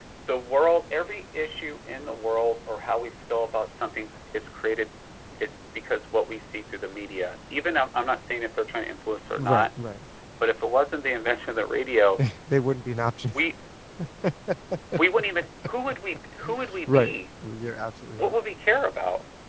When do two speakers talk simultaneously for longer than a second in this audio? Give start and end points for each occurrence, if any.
none

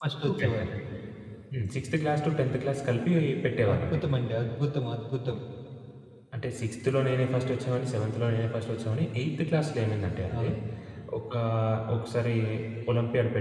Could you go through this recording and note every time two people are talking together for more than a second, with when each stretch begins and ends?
none

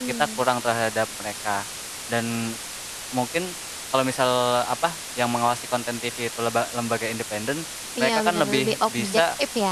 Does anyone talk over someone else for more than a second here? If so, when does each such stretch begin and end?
8.0-9.2

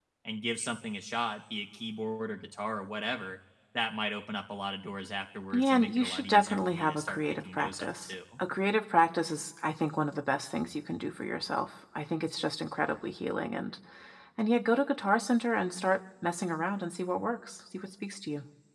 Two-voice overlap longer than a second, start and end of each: 5.5-8.1

